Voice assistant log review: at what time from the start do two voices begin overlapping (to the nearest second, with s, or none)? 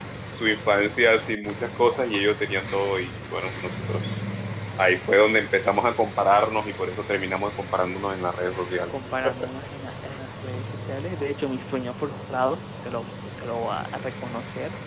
none